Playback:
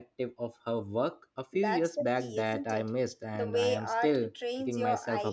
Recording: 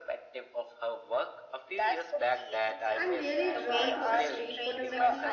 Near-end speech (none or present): present